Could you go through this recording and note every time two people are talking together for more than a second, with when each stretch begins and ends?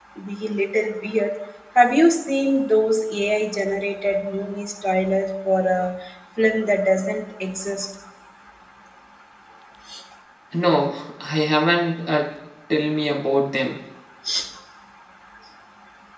none

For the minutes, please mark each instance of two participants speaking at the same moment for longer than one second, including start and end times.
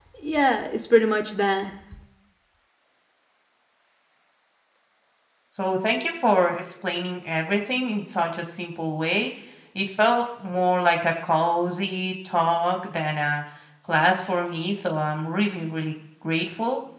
none

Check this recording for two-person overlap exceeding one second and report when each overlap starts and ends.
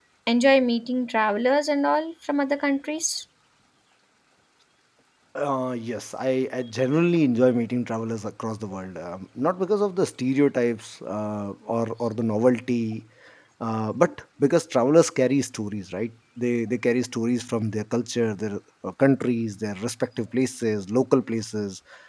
none

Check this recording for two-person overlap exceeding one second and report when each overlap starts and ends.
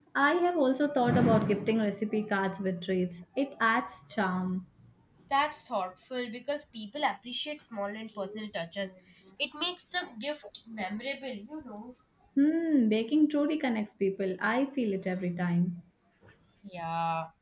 none

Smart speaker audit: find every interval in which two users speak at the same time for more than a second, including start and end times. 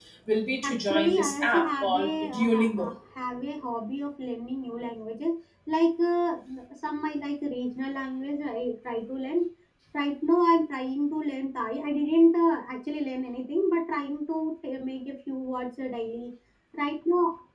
0.6-2.9

